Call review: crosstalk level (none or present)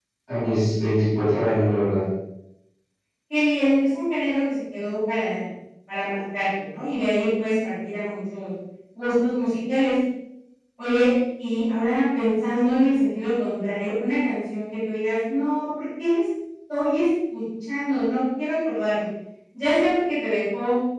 none